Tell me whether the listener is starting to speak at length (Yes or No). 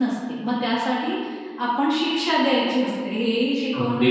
Yes